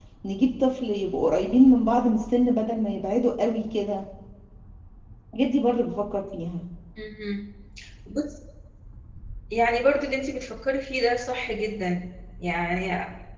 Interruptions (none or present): none